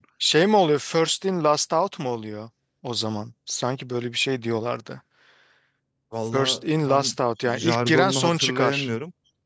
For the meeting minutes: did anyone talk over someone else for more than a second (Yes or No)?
Yes